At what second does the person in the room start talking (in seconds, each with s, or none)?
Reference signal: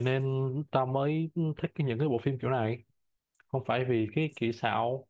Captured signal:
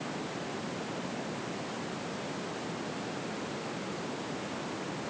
none